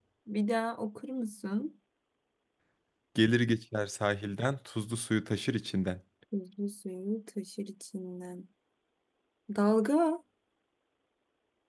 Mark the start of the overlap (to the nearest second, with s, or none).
none